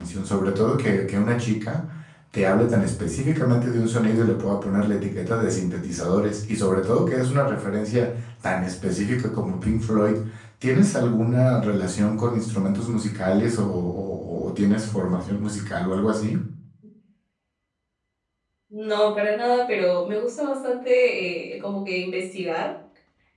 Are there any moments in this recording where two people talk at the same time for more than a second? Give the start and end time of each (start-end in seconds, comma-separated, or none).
none